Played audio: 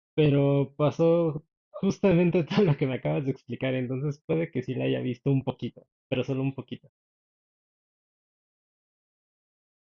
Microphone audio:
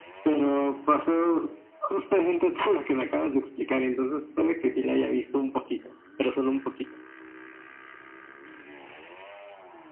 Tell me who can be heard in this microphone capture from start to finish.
echo only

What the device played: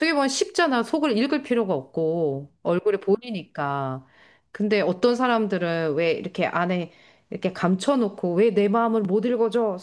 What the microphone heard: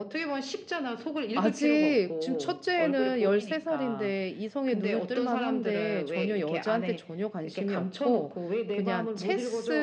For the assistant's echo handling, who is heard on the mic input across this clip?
both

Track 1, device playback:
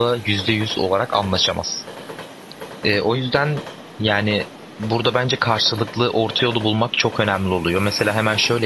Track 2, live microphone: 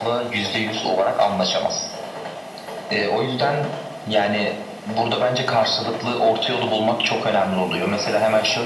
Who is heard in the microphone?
echo only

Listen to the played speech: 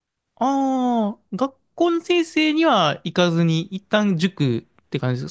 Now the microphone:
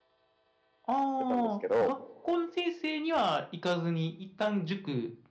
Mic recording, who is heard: both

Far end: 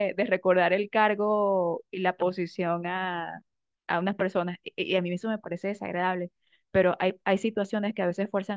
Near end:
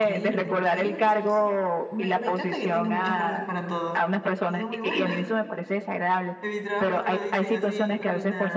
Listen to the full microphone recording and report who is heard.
both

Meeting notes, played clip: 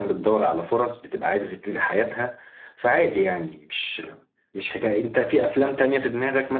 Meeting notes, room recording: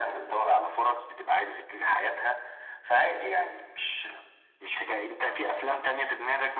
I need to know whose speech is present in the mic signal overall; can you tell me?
echo only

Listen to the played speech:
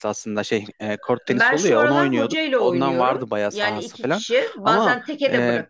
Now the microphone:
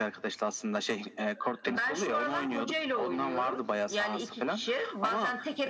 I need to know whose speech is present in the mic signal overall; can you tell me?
echo only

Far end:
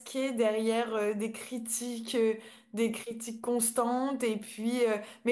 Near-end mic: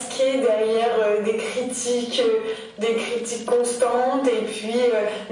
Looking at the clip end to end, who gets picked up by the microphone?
echo only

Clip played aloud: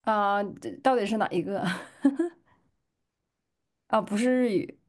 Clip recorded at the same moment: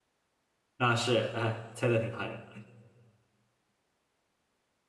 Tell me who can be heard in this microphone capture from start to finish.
user only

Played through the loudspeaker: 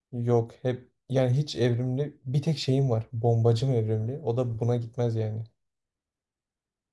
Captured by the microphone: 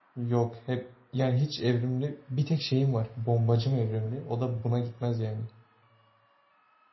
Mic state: echo only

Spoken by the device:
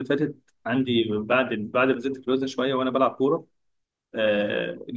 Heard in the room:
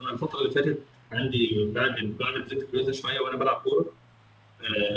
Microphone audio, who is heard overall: echo only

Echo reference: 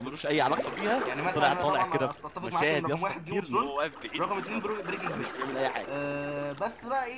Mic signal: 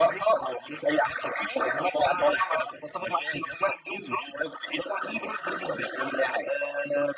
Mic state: echo only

